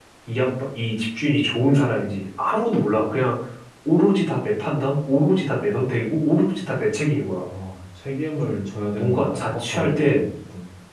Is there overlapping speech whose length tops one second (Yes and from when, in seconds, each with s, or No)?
Yes, from 9.0 s